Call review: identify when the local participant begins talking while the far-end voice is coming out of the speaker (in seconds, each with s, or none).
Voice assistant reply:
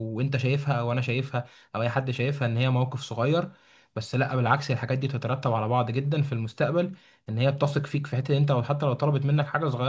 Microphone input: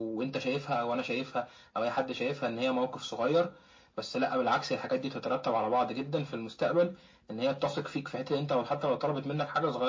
none